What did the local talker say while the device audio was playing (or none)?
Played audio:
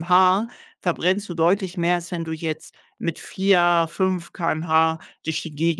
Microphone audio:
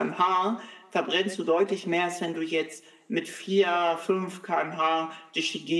none